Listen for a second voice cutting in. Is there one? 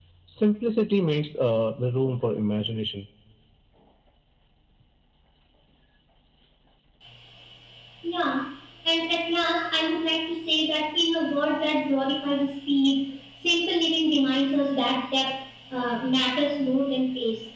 No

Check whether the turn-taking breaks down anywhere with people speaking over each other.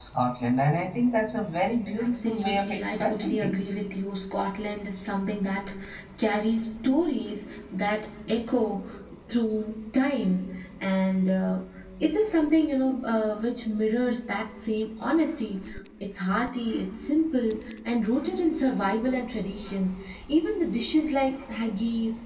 Yes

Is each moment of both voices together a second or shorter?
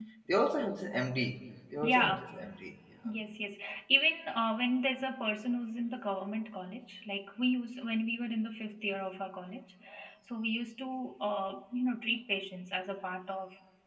Yes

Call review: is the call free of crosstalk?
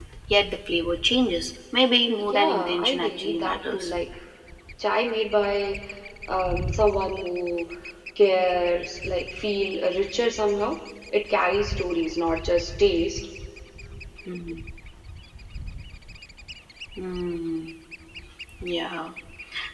No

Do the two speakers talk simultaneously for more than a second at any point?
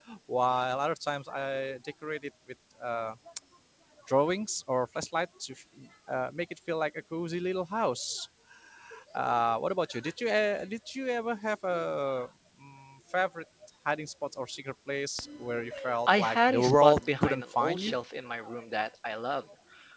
Yes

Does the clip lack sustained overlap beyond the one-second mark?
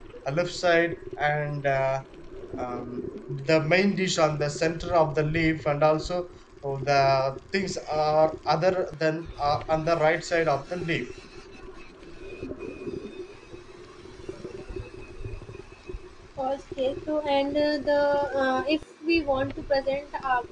Yes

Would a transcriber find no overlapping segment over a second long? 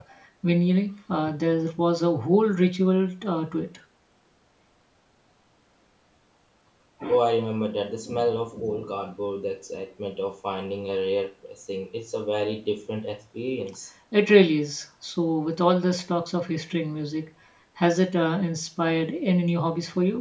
Yes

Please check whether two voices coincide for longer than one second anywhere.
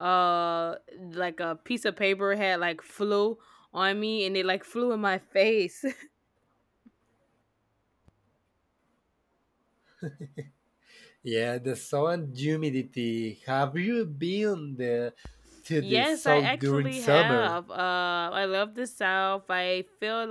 Yes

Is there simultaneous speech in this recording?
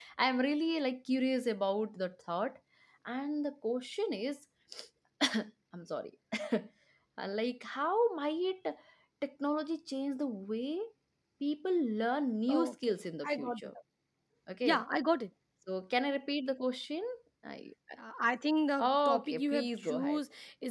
Yes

